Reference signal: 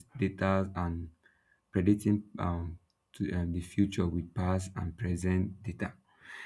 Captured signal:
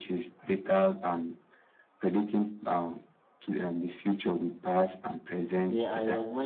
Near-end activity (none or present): present